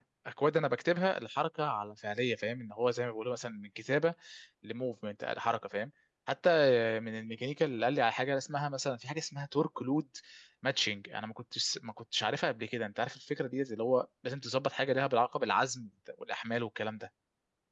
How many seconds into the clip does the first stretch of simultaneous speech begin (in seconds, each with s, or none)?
none